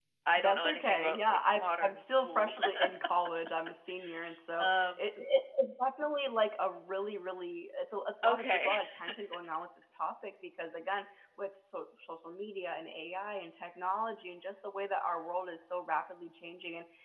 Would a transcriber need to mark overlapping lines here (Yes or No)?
Yes